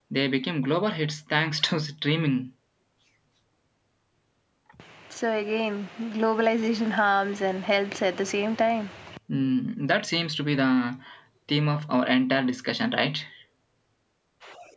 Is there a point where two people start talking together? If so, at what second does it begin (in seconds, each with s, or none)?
none